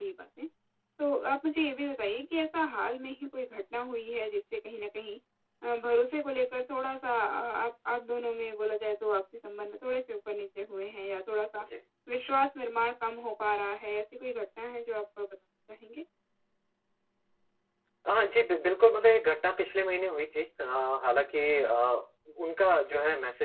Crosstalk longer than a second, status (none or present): none